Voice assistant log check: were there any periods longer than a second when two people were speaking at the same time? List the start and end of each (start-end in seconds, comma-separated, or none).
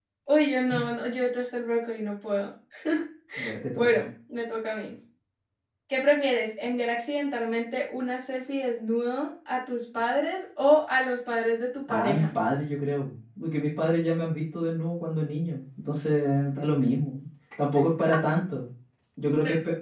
none